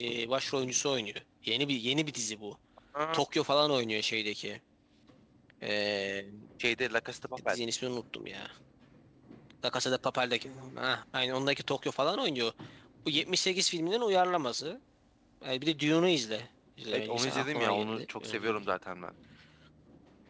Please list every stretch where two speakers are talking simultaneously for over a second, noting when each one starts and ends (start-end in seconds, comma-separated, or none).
16.9-18.6